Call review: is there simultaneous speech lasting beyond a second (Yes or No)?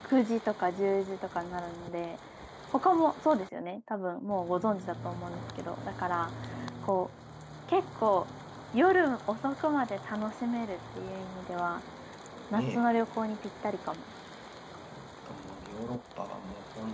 No